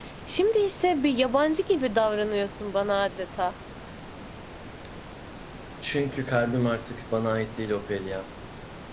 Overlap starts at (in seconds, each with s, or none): none